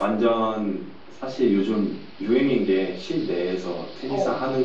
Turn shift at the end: No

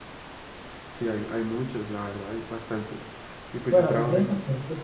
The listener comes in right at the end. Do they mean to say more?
Yes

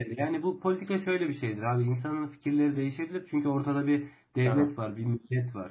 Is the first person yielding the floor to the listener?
No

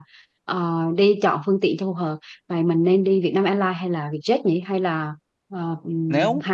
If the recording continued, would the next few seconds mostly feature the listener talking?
Yes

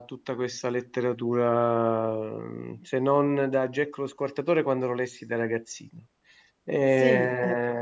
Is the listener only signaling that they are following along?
Yes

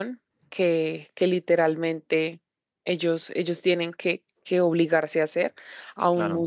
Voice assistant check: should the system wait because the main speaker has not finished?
Yes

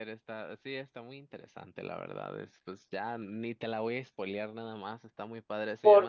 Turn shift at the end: No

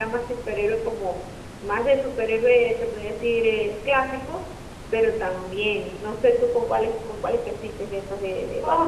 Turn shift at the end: Yes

